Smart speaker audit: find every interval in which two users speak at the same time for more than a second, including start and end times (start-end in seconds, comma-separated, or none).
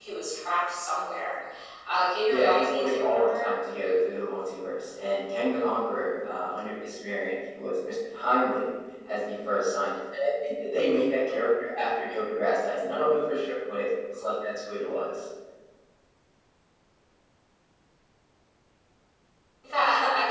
2.3-3.5